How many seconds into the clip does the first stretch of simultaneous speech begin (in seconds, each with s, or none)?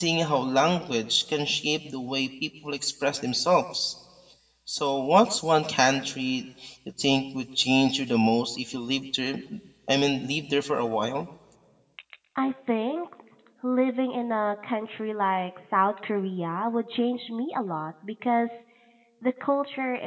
none